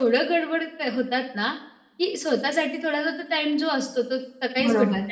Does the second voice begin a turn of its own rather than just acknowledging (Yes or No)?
No